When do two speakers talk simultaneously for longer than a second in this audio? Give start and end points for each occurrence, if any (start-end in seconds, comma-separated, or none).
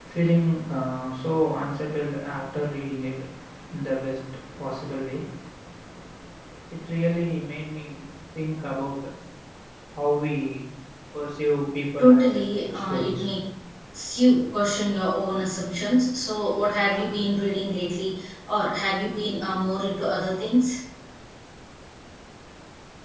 12.0-13.3